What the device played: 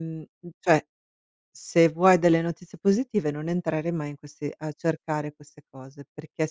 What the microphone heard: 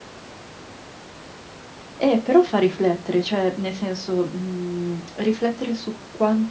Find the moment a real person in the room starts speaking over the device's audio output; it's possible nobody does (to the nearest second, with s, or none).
2 s